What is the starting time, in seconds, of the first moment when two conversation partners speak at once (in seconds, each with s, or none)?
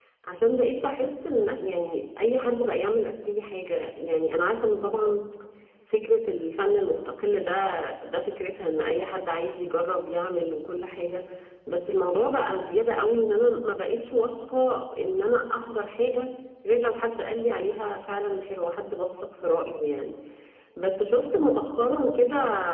none